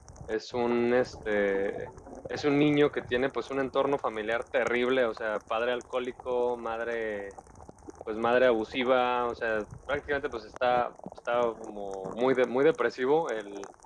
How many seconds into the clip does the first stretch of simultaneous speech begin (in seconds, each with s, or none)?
none